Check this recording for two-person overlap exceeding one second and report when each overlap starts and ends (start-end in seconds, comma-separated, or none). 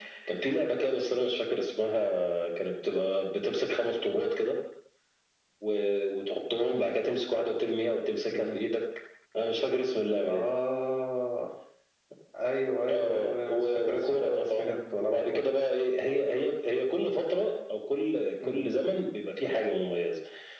12.9-15.4